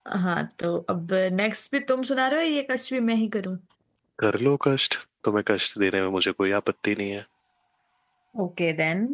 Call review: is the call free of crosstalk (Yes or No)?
Yes